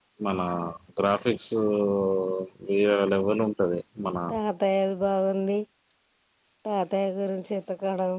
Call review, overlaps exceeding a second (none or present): none